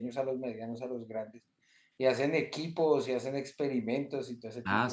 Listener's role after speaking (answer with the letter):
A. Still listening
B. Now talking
B